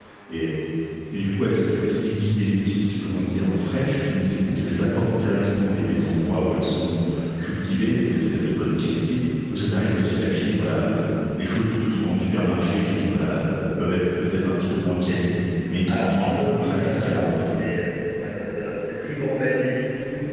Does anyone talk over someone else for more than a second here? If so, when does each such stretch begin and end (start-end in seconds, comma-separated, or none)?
15.8-17.4